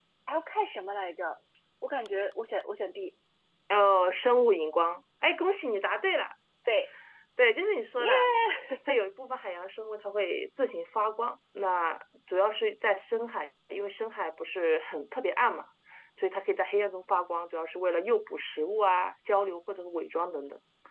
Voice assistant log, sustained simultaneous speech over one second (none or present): none